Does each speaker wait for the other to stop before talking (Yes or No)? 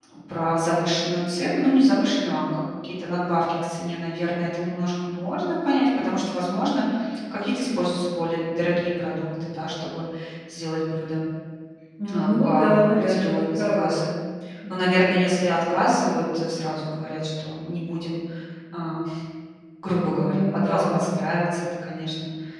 No